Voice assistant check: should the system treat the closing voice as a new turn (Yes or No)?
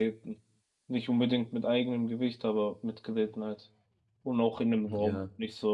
Yes